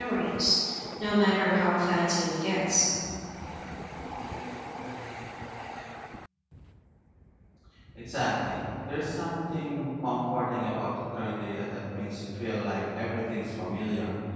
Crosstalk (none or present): none